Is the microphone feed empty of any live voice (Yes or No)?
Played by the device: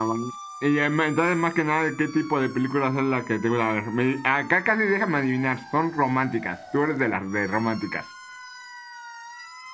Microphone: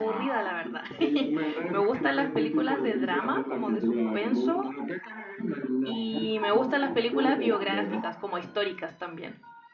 No